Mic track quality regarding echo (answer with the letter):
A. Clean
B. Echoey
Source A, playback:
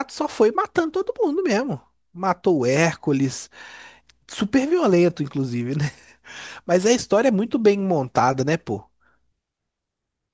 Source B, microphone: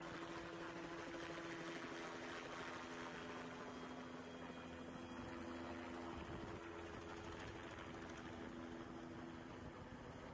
A